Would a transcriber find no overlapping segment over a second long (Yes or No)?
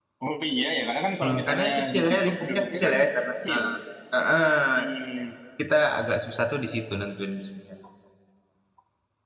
No